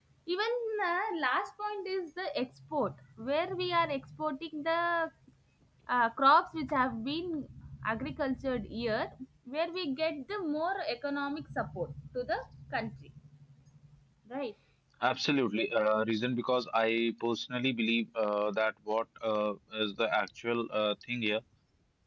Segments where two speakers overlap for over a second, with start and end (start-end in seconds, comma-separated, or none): none